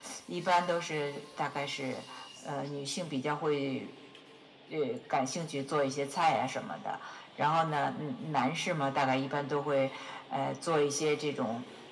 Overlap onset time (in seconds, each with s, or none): none